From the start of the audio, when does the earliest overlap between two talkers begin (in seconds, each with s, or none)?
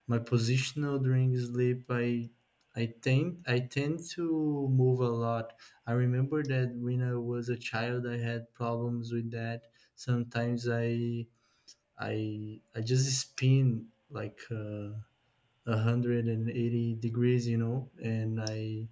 none